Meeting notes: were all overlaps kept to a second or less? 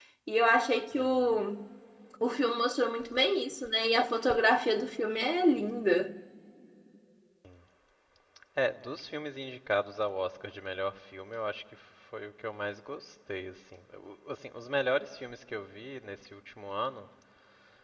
Yes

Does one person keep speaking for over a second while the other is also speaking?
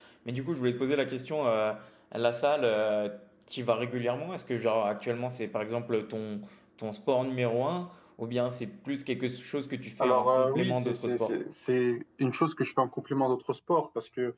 Yes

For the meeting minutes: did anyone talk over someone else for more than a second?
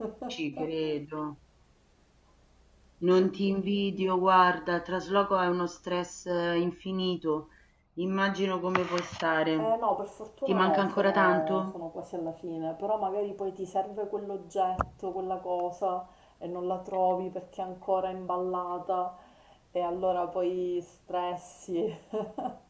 Yes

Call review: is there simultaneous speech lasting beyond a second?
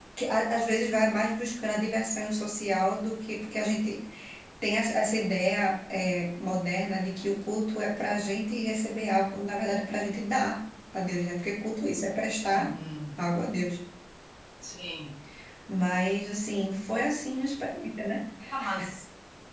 No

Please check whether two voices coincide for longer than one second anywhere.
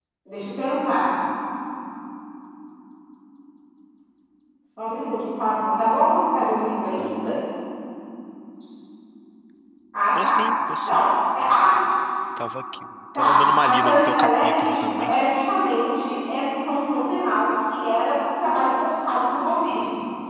Yes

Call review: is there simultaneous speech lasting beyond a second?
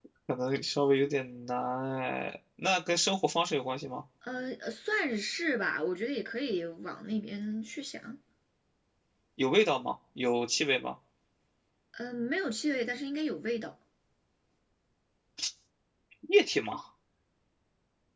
No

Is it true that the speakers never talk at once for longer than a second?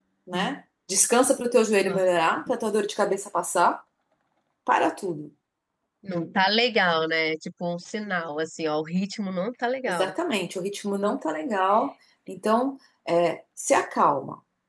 Yes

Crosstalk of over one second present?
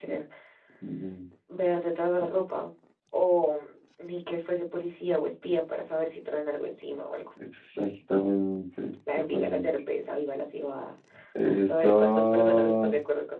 Yes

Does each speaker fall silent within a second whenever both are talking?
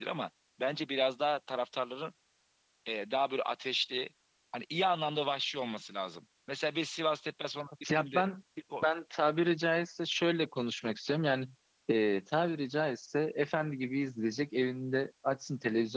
Yes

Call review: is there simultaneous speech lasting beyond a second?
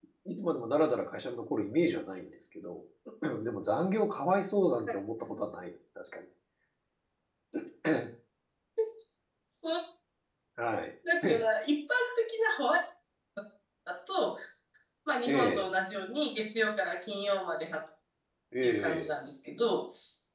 No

